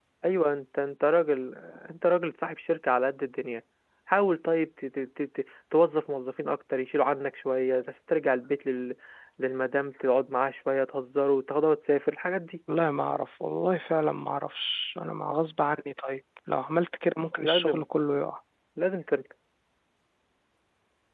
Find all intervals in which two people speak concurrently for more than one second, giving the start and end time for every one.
none

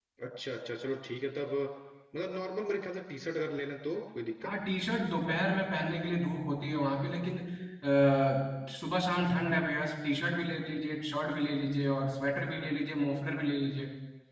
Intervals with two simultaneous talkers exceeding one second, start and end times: none

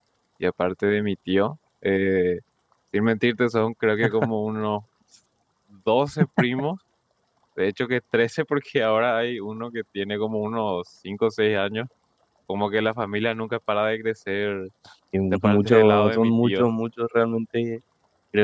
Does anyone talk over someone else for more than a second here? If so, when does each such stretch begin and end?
15.3-16.7

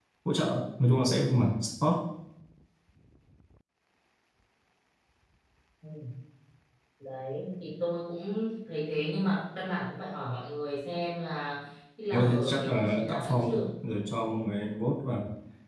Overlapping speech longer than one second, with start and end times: 12.1-13.6

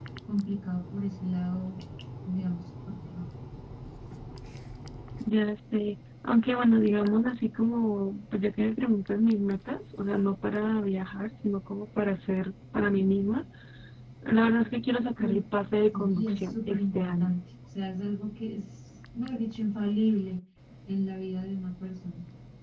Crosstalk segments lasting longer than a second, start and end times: 15.9-17.4

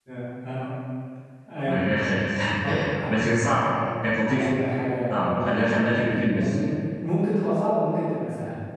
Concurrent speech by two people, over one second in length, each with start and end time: 5.1-6.5

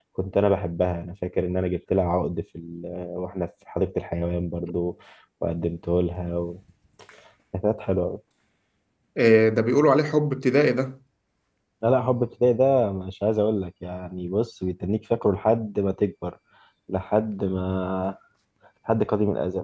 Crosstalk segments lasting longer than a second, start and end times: none

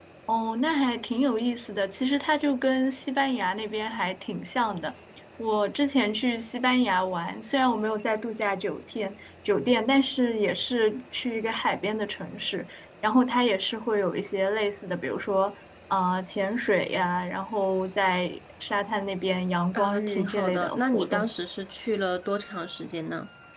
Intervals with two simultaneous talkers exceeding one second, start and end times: 19.7-21.3

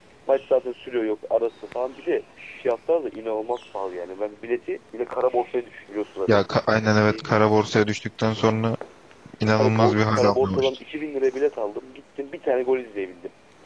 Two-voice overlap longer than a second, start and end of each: 9.6-10.8

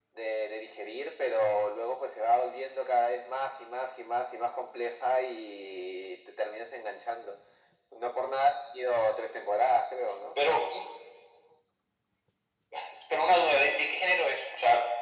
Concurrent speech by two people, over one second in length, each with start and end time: none

